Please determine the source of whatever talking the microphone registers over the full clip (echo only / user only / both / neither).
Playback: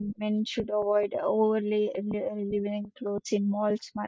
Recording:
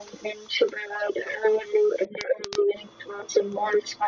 echo only